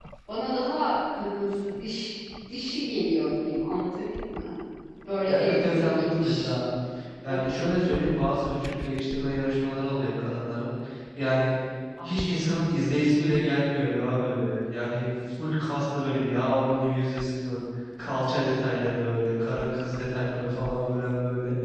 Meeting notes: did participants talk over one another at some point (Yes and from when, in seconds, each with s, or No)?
Yes, from 5.3 s